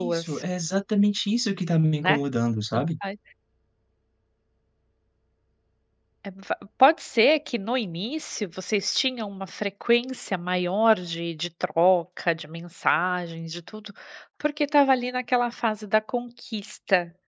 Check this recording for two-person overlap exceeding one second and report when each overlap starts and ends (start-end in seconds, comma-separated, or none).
none